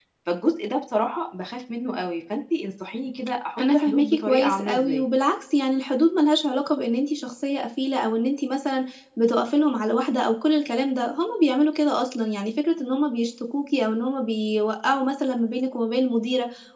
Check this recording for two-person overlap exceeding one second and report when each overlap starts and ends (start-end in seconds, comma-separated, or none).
3.6-5.0